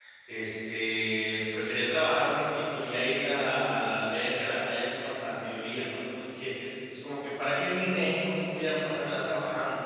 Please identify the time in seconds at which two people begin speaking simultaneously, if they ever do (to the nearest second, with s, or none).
none